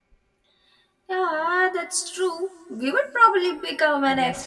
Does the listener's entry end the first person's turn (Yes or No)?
Yes